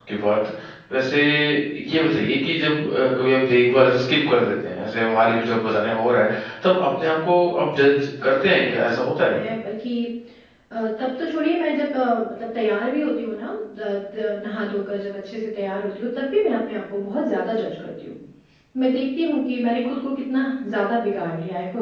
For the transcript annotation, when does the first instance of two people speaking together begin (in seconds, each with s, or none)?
8.2 s